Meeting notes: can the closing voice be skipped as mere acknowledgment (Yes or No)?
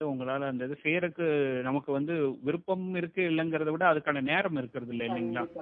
No